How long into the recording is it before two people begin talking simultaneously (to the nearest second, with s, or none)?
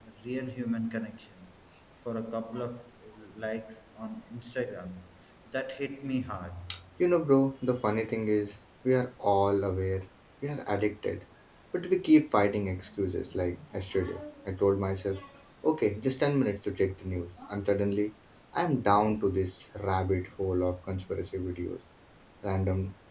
none